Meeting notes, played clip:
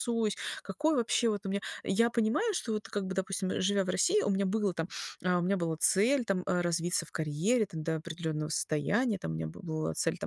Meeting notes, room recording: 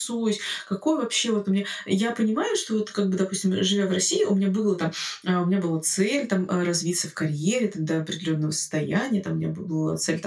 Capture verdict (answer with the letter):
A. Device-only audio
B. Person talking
A